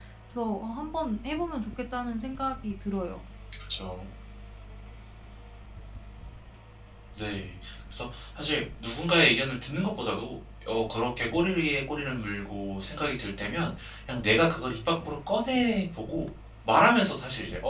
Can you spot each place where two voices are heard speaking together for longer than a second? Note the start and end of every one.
none

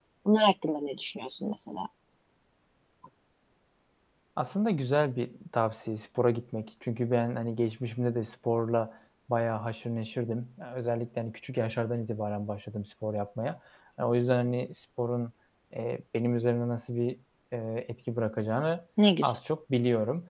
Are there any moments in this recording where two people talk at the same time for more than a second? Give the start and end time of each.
none

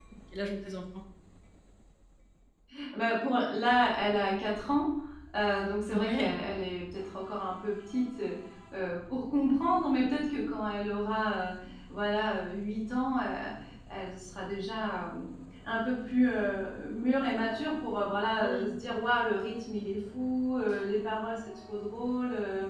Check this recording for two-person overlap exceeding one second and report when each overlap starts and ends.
none

